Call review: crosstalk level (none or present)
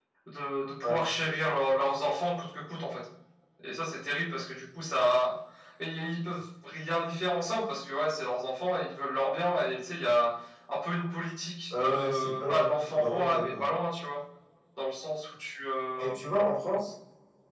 present